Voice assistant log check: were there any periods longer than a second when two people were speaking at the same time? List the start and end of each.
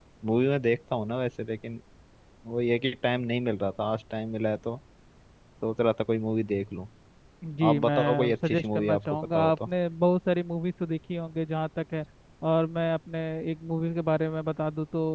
7.7-9.7

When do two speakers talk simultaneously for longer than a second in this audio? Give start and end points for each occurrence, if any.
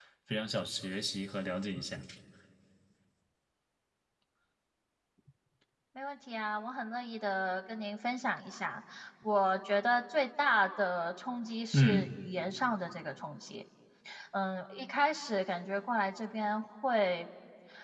none

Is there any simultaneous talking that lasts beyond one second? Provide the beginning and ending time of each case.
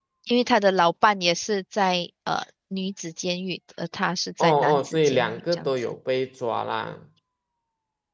4.4-5.9

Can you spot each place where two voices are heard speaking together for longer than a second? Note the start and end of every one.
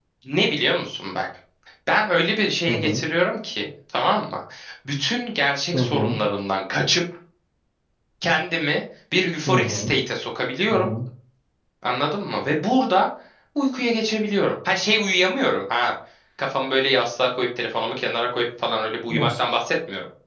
none

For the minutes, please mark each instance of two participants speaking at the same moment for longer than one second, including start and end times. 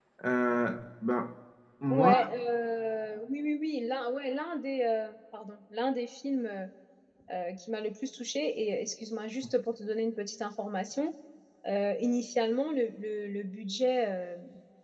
none

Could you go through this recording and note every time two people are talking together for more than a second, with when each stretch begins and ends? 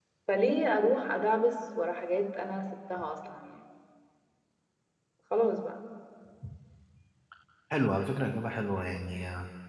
none

